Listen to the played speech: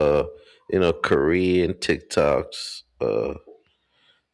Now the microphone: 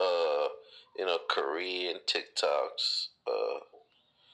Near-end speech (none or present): none